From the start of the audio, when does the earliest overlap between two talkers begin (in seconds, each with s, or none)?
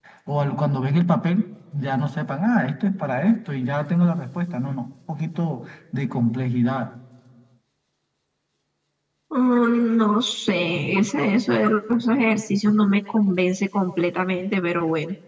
none